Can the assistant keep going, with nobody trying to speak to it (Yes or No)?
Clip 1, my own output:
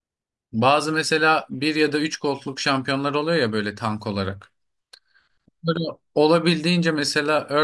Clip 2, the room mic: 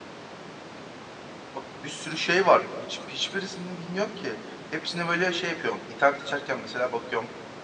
No